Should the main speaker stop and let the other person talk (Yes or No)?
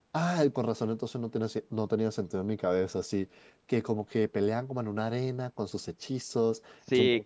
Yes